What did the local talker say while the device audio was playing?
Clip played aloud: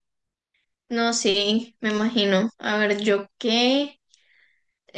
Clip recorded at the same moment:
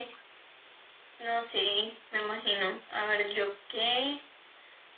none

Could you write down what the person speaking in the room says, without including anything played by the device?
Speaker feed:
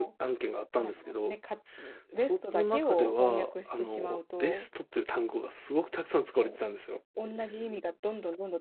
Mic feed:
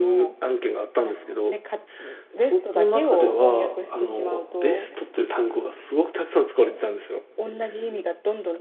none

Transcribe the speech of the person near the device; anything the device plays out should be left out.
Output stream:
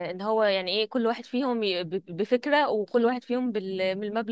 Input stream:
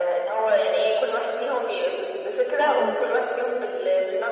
اه

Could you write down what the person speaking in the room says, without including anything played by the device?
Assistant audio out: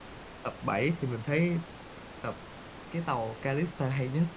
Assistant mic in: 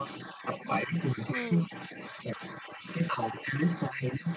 ừ.

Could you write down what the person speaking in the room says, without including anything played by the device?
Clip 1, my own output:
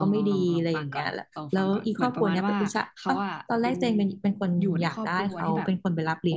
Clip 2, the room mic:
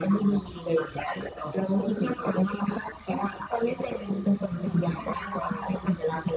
เออ

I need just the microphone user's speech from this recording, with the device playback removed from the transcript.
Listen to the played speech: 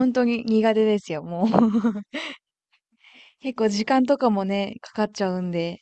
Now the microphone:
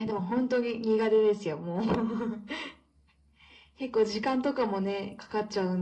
none

